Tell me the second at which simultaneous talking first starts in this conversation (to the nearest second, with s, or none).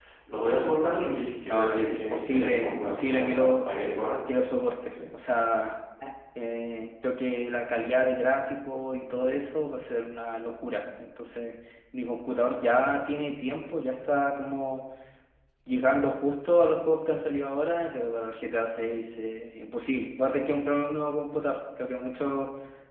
1 s